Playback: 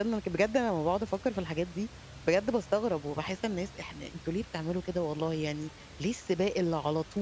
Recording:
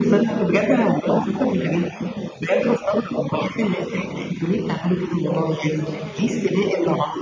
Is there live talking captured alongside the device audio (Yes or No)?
Yes